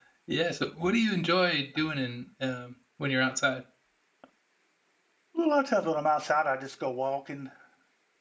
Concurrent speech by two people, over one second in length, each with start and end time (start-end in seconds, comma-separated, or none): none